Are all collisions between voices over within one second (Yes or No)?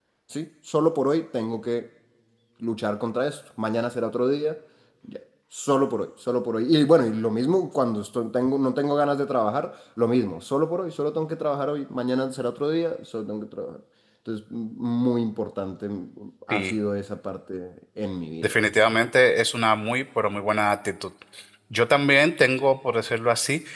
Yes